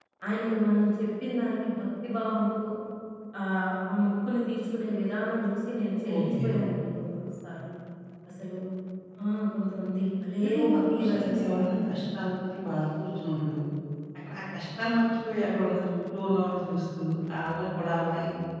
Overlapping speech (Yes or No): Yes